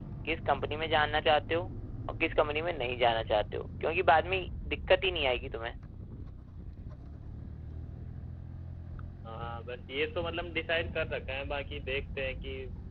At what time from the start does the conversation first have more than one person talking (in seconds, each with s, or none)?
none